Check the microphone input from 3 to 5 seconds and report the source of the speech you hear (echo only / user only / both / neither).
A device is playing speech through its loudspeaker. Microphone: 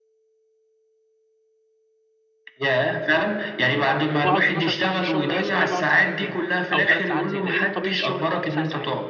both